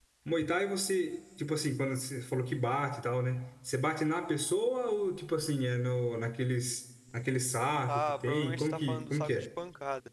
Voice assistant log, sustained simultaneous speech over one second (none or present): present